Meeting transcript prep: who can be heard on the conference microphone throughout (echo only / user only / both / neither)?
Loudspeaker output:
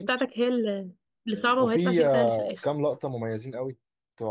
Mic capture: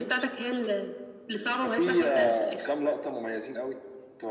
echo only